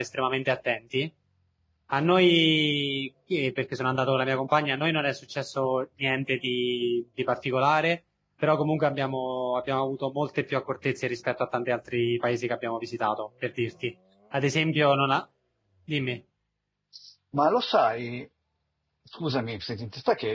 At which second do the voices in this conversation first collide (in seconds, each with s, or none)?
none